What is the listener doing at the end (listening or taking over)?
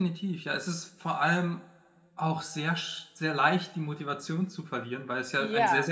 listening